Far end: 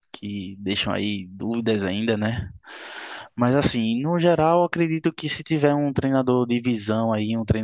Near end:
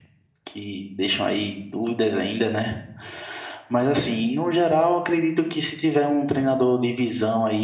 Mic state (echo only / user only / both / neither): echo only